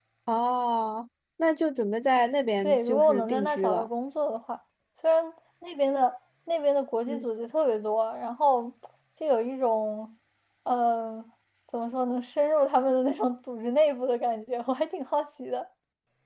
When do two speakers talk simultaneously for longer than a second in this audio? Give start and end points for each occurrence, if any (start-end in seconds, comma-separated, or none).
2.6-3.9